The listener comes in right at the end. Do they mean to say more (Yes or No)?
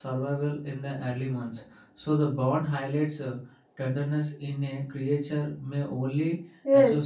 Yes